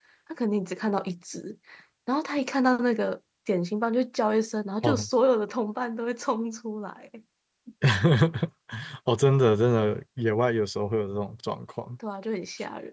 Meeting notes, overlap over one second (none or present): none